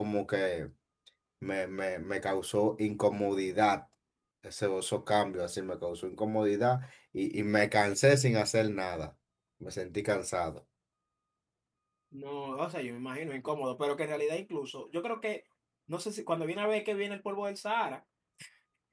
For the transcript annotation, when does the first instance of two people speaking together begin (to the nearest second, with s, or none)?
none